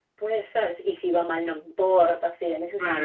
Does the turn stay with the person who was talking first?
No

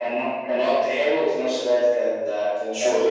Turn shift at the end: Yes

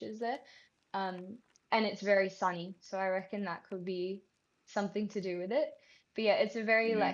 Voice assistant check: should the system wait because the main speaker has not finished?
Yes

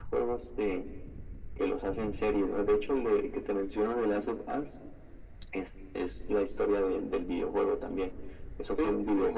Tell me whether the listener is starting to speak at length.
No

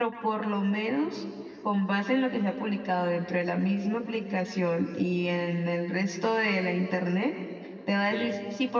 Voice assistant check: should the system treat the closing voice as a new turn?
No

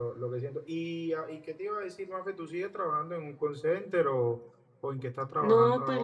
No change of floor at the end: No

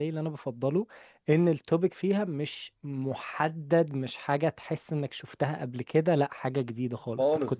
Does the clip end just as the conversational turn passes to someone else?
Yes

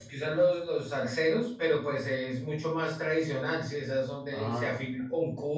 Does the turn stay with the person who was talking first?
Yes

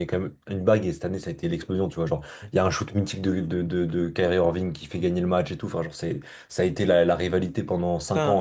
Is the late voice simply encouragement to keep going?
No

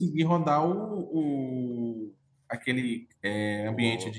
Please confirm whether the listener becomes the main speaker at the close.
No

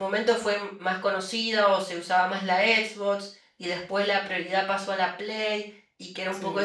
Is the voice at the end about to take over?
No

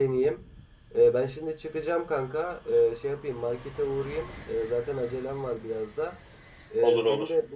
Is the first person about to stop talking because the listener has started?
No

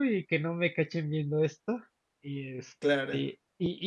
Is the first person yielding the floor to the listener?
No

